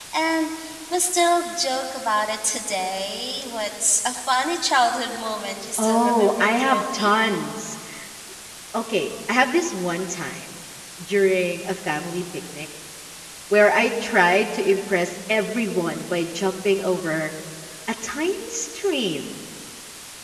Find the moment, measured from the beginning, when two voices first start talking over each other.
5.8 s

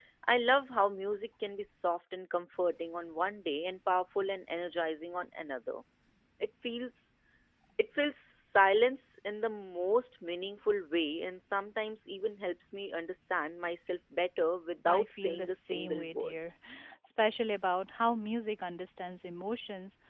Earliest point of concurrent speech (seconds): 14.8 s

